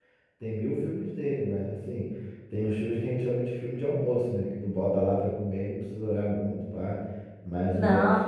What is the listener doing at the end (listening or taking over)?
listening